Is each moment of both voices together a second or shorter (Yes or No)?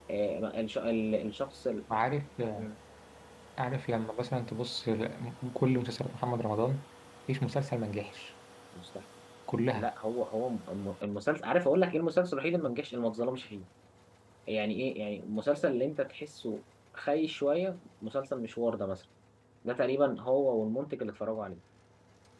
Yes